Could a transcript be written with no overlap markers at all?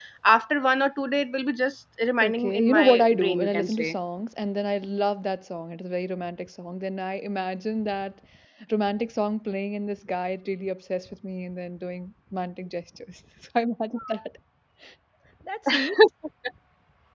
No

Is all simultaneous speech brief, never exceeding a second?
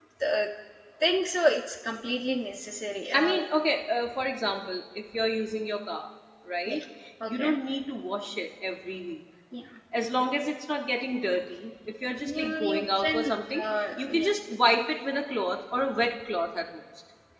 No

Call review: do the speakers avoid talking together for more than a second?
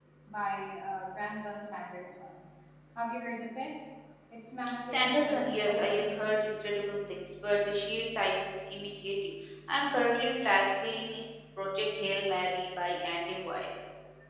No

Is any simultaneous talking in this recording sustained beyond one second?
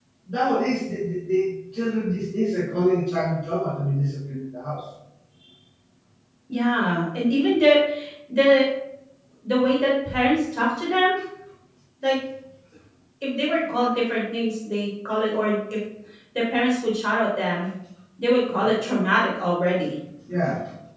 No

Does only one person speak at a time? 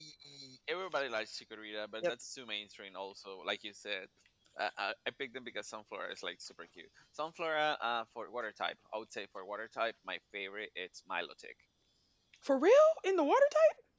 Yes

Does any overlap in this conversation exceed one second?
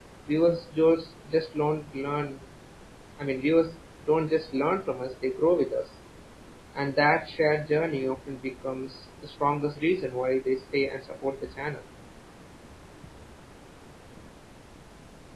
No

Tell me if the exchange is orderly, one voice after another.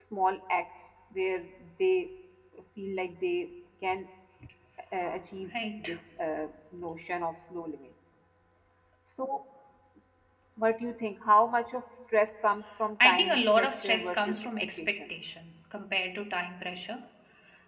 No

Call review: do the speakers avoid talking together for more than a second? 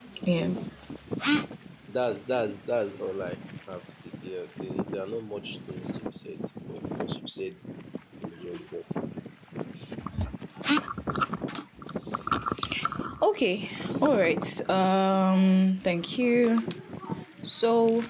Yes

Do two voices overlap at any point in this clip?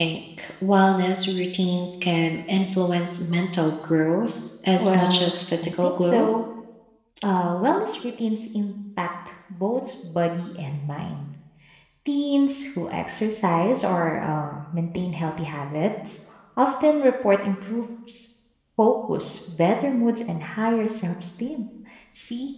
Yes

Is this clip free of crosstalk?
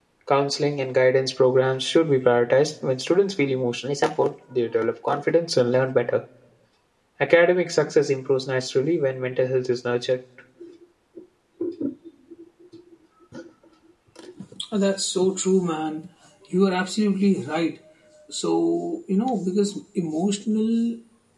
Yes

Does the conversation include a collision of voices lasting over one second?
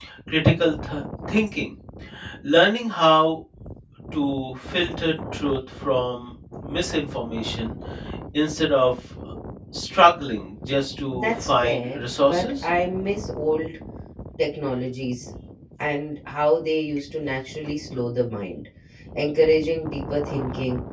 Yes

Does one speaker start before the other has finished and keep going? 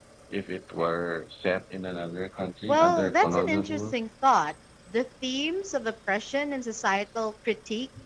Yes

